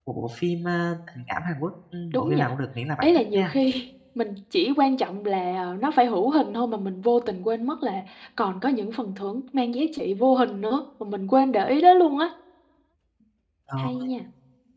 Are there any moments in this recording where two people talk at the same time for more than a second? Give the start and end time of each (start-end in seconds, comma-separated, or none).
none